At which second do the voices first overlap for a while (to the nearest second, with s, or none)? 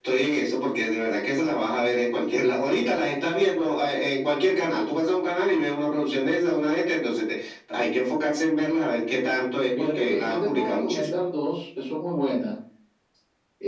10 s